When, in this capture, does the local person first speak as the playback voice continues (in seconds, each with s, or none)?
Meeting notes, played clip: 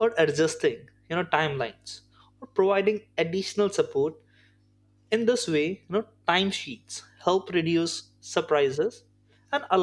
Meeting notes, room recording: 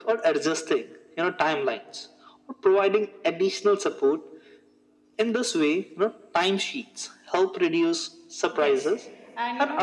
8.5 s